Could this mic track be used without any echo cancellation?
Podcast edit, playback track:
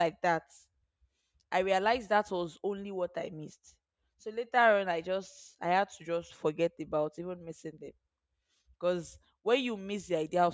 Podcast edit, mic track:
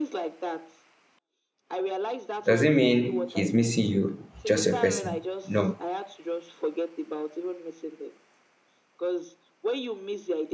No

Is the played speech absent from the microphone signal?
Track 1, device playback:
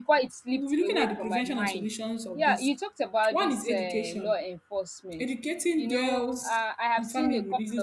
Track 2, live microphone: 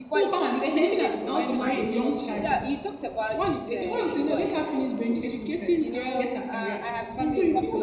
No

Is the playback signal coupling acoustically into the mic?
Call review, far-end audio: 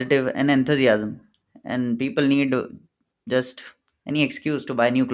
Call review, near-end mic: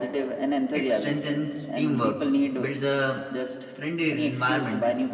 Yes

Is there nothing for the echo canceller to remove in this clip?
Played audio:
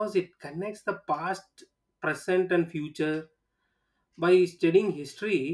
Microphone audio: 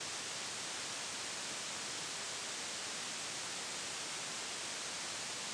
Yes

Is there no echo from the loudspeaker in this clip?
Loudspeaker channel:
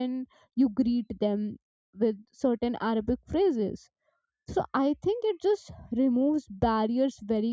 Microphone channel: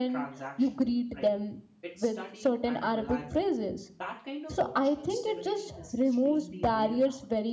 No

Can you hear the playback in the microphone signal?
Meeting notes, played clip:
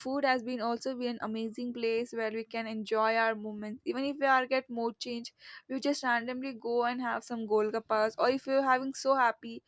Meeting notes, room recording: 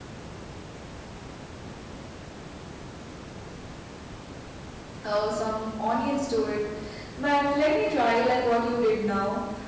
No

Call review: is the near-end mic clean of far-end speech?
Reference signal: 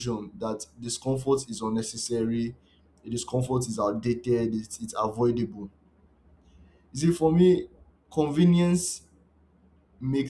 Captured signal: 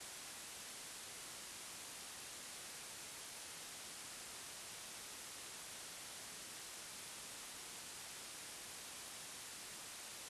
Yes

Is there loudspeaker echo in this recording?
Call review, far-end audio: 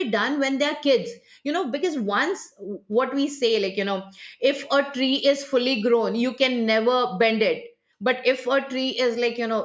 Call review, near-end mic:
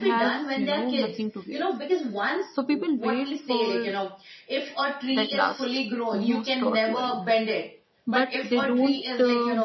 Yes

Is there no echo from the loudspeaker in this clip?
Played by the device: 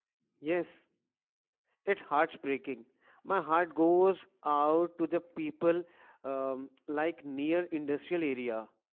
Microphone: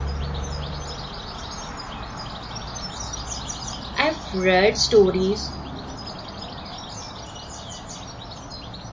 Yes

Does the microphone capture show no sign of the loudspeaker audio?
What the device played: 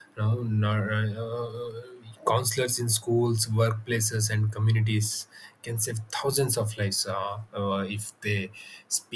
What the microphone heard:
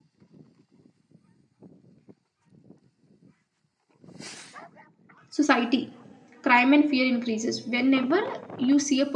Yes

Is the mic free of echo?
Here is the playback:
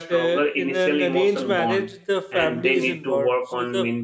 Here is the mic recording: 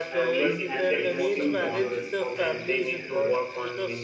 No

